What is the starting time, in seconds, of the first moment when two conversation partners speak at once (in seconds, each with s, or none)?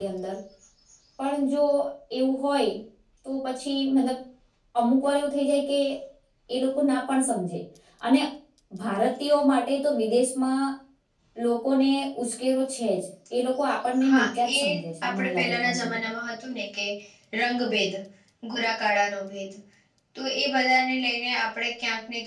14.1 s